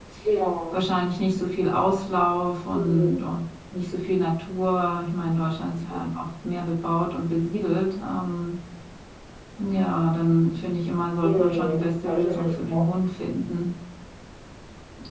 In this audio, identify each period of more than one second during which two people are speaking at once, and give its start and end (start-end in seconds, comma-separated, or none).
11.2-12.6